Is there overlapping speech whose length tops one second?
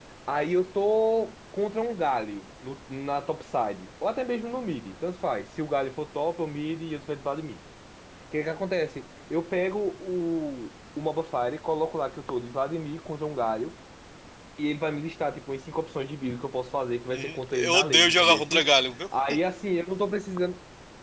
Yes, from 17.1 s

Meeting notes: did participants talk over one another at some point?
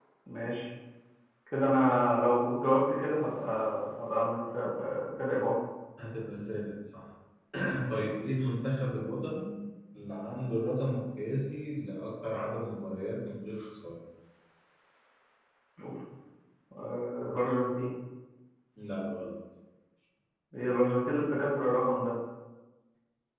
No

